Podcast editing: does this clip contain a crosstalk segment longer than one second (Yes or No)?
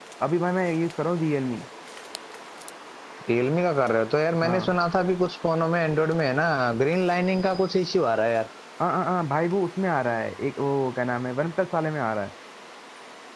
No